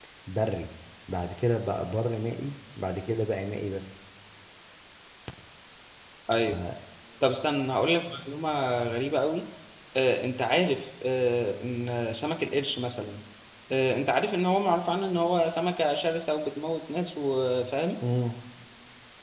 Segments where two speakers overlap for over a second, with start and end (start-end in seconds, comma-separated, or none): none